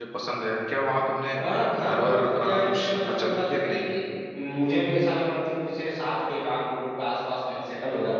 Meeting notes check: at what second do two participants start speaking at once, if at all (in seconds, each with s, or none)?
1.8 s